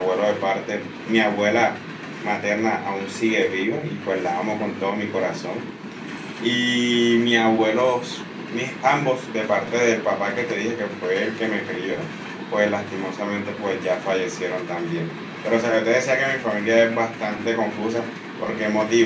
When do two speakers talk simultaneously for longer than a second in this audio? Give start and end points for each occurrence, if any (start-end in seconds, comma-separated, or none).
none